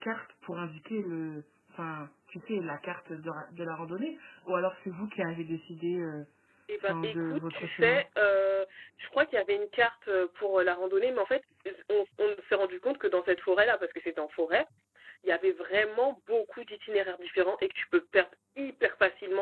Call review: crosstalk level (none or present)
present